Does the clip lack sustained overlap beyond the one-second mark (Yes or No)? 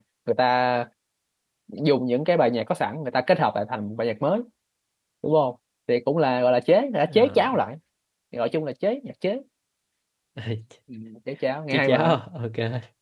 Yes